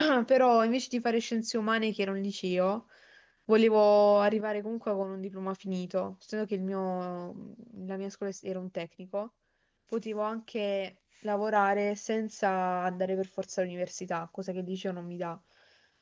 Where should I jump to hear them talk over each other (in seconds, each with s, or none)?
none